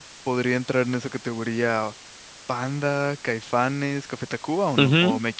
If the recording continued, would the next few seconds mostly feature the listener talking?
Yes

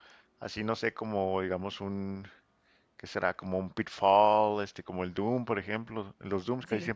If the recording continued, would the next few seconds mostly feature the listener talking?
No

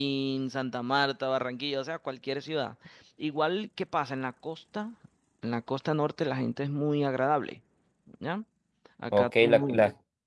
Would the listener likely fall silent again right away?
No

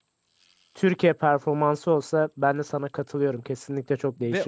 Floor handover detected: Yes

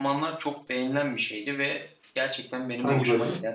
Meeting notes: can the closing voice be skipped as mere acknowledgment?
Yes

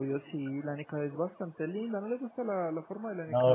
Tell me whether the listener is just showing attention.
No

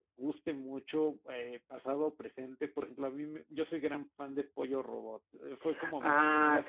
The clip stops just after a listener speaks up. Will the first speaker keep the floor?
No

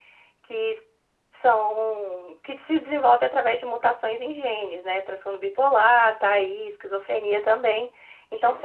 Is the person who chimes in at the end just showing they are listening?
Yes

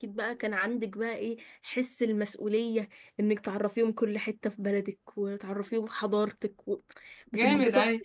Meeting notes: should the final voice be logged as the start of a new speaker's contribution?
Yes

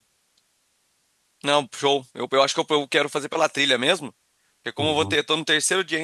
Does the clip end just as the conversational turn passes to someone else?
No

